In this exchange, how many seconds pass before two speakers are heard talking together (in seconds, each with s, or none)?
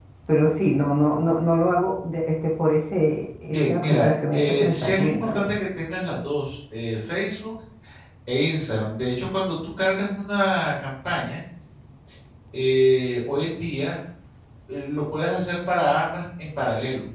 3.4 s